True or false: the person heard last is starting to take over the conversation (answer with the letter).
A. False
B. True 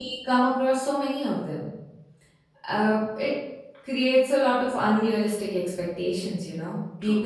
A